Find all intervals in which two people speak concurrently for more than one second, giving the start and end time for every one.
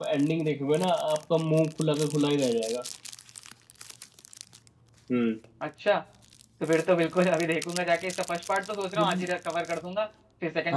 none

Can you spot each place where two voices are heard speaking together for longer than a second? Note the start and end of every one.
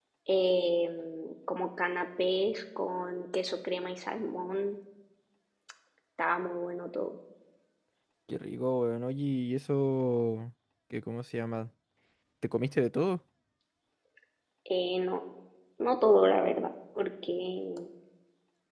none

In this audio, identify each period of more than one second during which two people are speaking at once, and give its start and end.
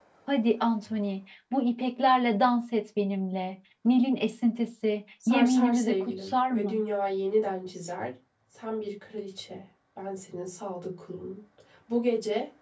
5.3-6.8

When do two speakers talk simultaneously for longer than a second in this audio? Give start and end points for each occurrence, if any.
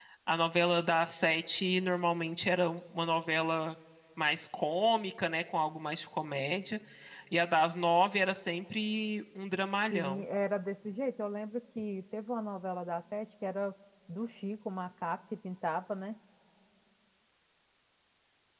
none

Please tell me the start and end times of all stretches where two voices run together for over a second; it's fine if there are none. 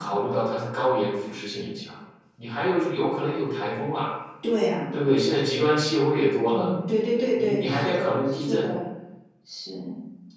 7.4-8.7

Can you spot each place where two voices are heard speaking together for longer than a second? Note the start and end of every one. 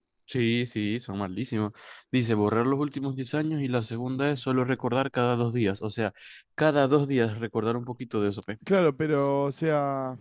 none

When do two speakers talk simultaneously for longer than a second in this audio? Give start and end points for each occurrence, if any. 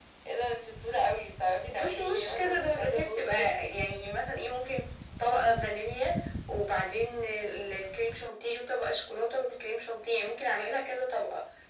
1.7-3.5

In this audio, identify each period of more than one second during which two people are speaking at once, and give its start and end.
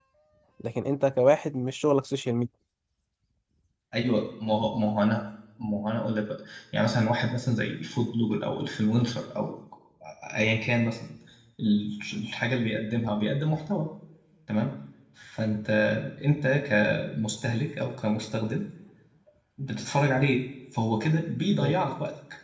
none

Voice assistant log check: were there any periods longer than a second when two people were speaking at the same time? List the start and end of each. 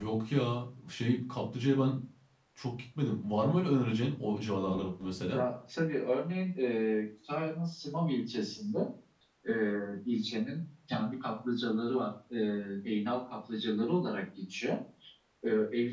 none

